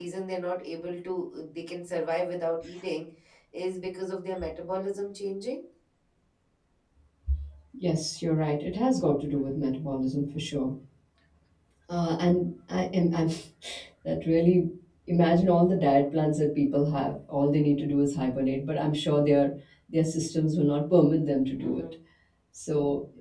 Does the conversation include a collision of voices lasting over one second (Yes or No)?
No